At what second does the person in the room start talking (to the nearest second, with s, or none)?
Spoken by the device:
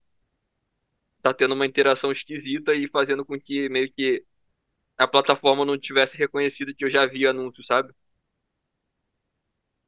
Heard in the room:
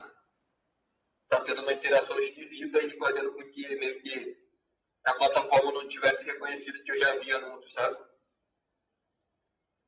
none